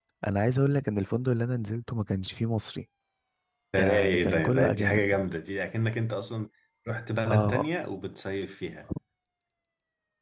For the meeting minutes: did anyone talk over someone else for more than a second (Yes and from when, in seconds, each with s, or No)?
Yes, from 3.8 s